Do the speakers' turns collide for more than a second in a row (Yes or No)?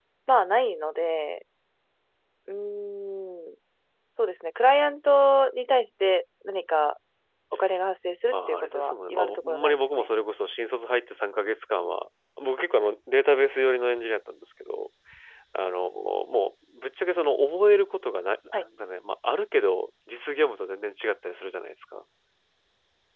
Yes